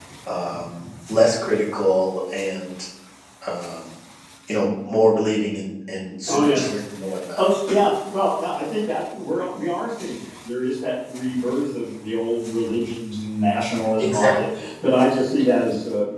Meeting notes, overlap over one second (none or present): none